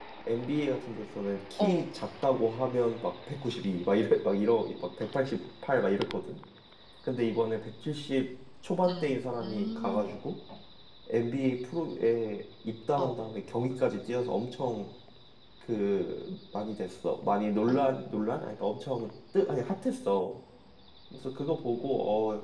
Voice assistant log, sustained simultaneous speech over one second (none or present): present